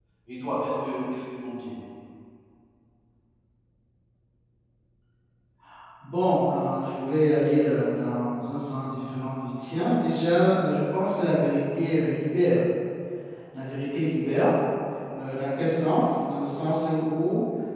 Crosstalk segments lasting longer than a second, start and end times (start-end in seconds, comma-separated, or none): none